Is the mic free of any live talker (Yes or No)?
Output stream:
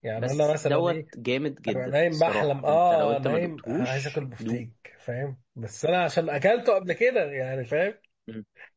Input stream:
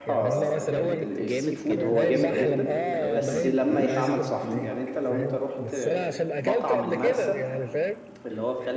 No